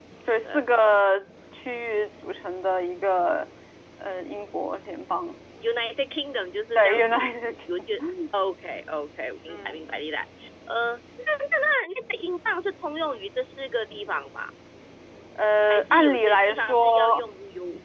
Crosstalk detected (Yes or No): Yes